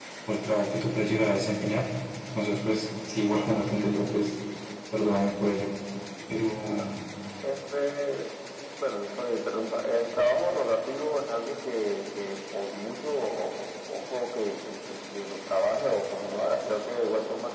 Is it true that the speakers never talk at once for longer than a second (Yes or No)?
Yes